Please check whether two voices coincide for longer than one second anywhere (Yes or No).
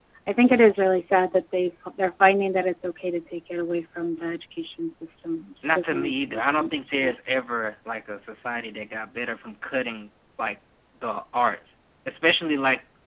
Yes